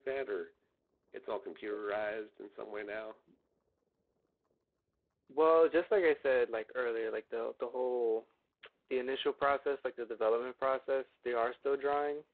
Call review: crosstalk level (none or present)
none